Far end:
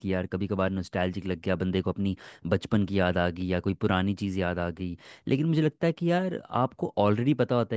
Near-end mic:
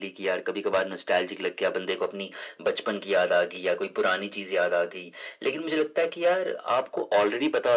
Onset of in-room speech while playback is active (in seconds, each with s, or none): none